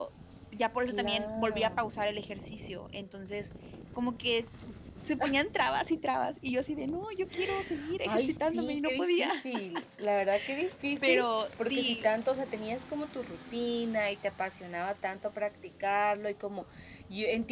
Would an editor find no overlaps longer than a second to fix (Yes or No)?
No